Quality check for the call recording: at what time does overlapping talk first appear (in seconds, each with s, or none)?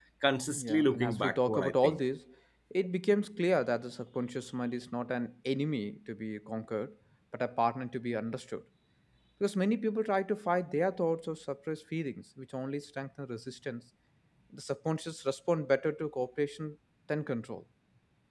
0.6 s